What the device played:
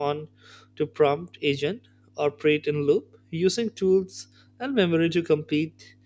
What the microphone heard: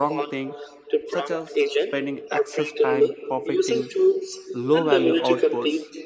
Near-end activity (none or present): present